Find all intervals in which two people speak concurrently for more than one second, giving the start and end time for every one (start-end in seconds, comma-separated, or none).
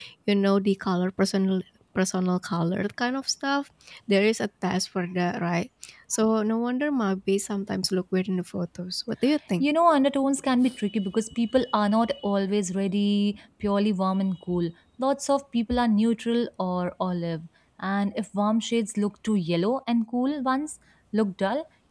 none